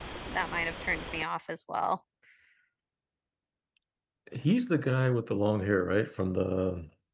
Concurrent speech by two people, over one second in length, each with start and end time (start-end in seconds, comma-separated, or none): none